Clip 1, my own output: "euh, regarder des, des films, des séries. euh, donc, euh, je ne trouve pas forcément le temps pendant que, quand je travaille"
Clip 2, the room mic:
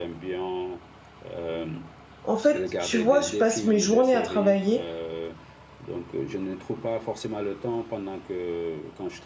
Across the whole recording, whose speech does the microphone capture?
both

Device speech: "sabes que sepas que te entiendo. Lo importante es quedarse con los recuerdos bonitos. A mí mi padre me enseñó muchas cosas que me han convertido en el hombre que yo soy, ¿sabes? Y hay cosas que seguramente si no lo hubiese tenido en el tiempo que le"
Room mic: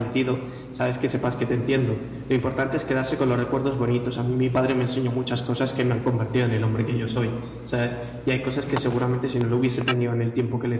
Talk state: echo only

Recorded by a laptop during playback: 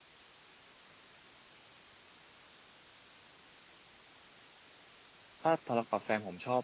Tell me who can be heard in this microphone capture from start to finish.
user only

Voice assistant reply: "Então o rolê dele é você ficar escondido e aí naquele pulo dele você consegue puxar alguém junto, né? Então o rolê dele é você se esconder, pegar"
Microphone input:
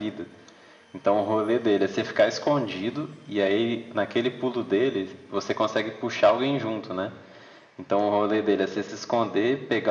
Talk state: echo only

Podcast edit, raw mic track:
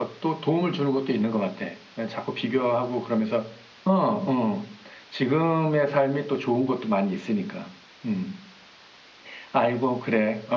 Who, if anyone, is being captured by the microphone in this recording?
user only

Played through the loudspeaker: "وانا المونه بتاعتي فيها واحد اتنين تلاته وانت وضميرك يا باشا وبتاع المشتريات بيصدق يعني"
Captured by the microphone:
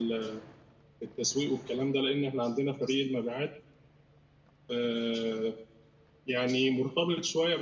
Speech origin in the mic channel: user only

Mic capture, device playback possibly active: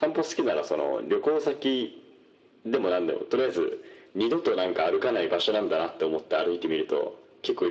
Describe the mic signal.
echo only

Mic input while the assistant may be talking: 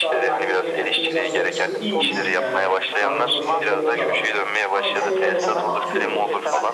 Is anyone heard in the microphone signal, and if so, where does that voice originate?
both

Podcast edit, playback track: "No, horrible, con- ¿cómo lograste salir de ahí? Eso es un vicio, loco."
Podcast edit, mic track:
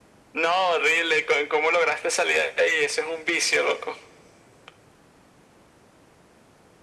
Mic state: echo only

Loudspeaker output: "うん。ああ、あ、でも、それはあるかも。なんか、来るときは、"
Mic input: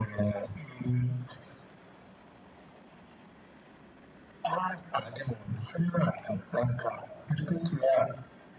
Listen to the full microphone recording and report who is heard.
echo only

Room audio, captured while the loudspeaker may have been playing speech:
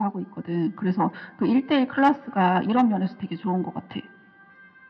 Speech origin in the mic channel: echo only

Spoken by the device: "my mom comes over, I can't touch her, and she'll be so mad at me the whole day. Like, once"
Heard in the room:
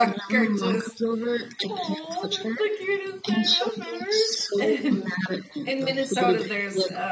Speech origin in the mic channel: both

